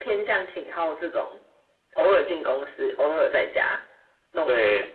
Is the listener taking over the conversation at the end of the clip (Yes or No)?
Yes